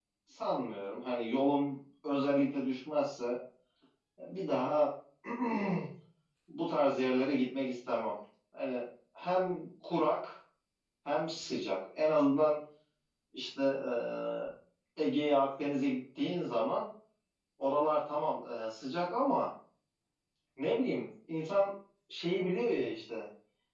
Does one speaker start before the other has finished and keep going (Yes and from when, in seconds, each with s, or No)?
No